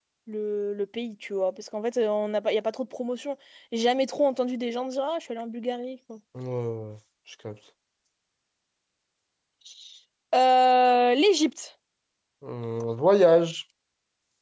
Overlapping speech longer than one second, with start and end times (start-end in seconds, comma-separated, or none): none